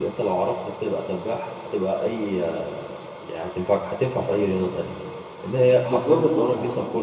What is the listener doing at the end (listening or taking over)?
listening